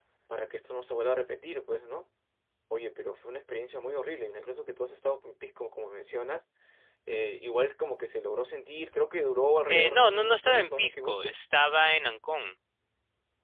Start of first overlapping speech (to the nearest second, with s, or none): 10 s